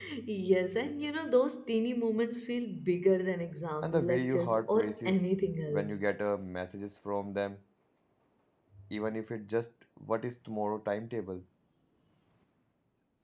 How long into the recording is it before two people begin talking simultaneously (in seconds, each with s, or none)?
3.8 s